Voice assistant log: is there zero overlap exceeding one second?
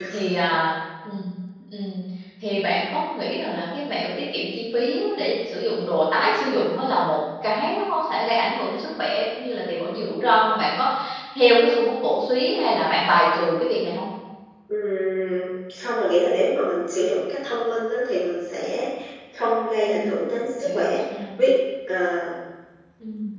Yes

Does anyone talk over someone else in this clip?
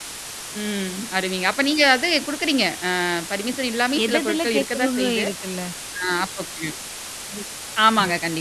Yes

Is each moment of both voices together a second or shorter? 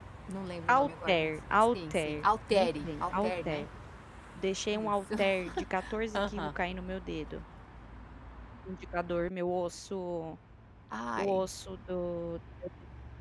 No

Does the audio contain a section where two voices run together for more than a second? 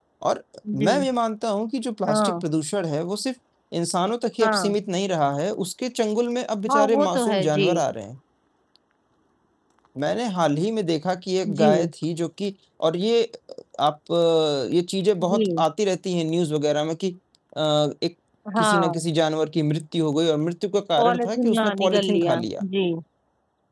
Yes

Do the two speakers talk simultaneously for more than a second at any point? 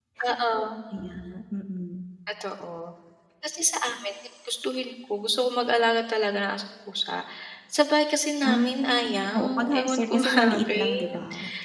Yes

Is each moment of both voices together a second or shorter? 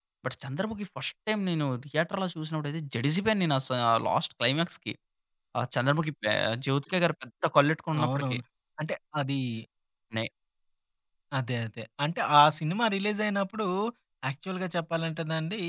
Yes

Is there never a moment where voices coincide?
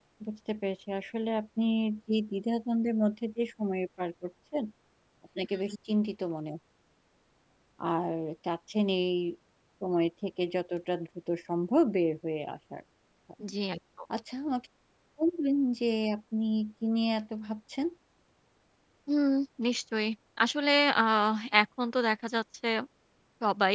Yes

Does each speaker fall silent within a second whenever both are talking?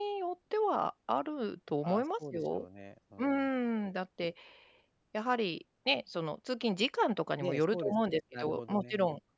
No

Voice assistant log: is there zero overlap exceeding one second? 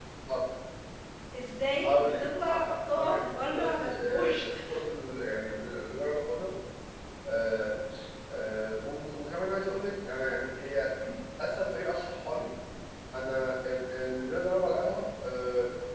No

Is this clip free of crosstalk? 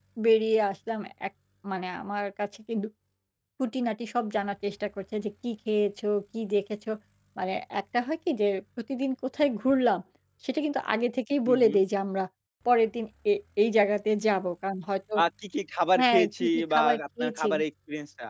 No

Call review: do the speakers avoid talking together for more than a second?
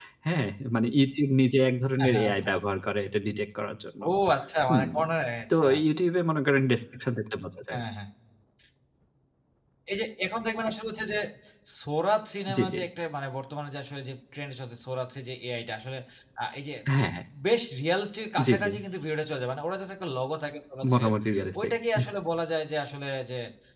Yes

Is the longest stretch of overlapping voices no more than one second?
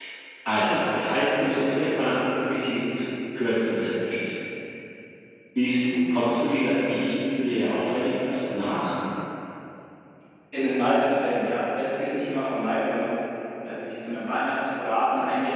Yes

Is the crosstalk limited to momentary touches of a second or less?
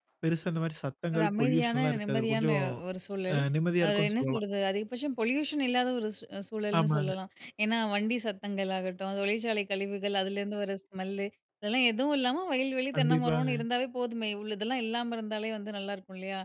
No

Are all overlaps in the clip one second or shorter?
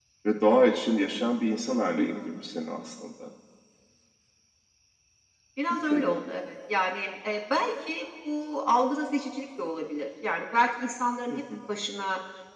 Yes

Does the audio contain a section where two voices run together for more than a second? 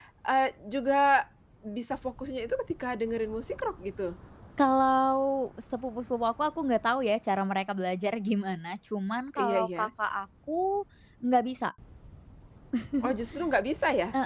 No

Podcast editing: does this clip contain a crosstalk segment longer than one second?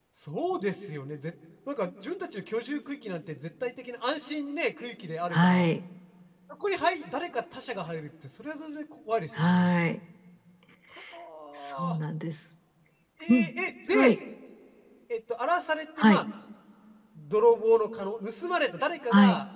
No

